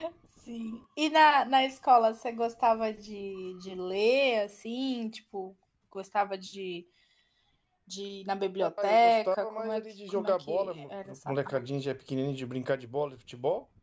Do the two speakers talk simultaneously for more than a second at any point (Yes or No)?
Yes